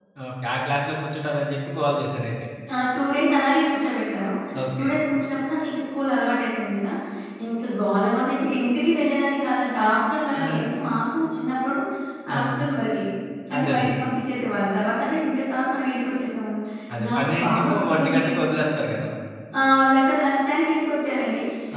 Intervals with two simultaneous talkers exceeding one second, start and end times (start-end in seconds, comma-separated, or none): 17.1-18.5